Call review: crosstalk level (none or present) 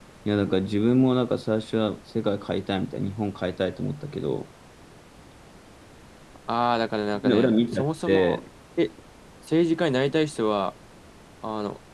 present